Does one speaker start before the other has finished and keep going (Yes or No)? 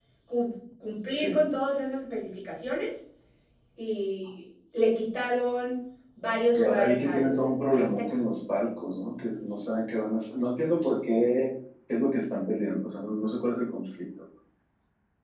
Yes